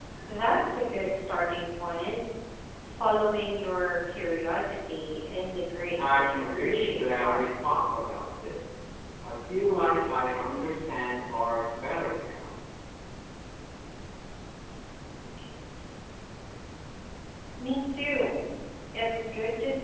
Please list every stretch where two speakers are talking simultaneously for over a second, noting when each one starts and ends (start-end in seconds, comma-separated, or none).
6.0-7.4